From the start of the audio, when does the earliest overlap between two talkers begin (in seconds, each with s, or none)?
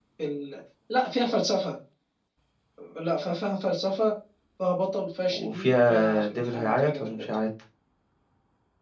5.3 s